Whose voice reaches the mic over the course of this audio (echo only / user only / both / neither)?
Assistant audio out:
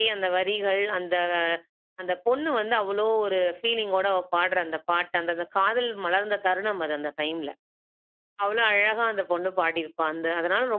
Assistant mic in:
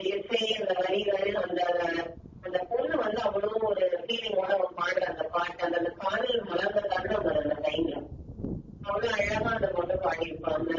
echo only